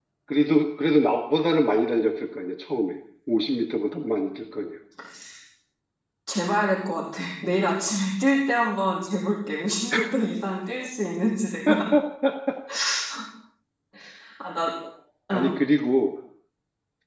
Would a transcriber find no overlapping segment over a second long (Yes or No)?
Yes